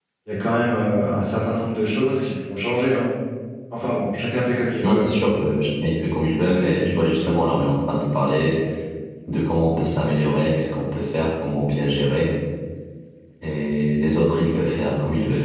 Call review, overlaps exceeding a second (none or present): none